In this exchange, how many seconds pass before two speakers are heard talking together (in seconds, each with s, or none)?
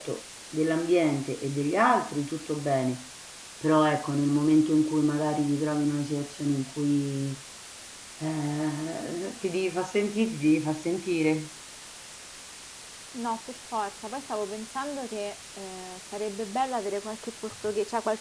none